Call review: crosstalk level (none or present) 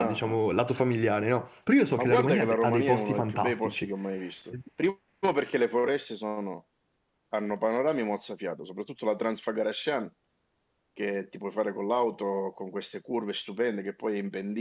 present